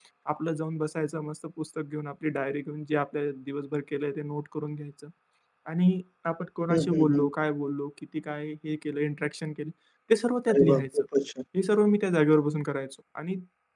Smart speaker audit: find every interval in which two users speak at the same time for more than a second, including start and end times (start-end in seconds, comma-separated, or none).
none